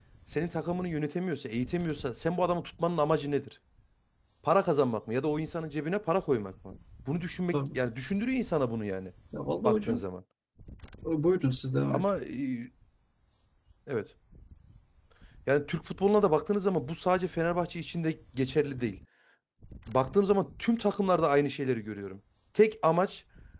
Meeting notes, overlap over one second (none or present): none